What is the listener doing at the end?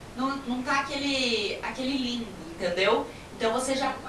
listening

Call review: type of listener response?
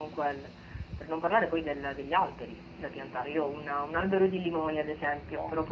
listening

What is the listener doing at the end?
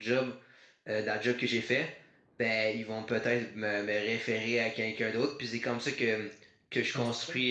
listening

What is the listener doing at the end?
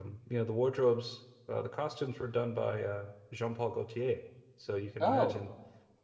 listening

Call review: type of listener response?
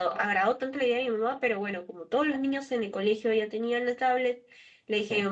listening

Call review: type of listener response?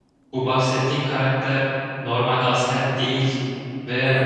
listening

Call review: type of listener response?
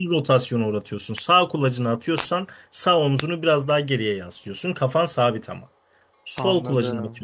listening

